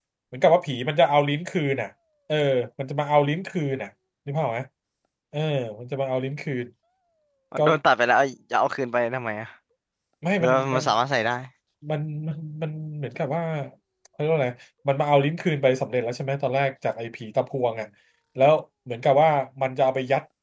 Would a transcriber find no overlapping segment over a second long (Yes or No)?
Yes